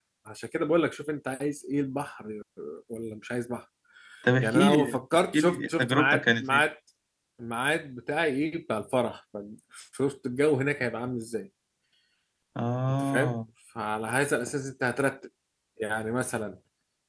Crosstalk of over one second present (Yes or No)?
Yes